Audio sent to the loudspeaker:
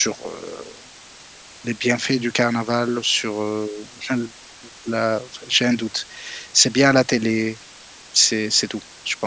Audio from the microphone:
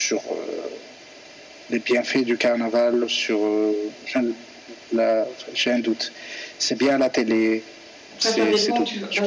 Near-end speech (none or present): present